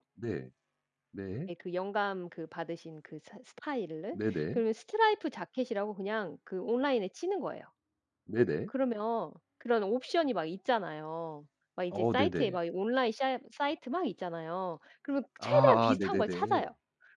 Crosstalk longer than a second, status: present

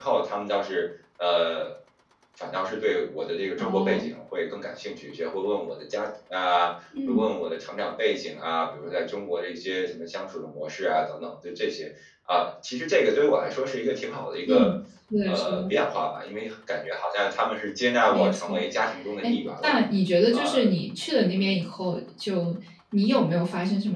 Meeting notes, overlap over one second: none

